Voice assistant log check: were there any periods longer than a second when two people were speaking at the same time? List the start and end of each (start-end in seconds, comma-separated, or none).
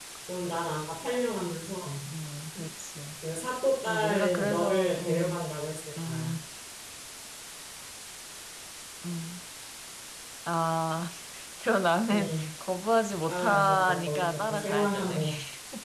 3.9-5.5, 13.3-15.2